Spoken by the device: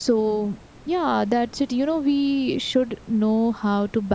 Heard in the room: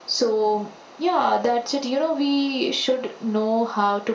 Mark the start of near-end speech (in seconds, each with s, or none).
none